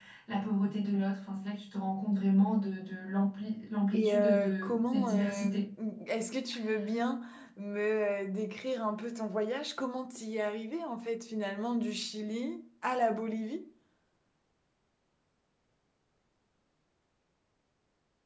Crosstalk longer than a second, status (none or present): present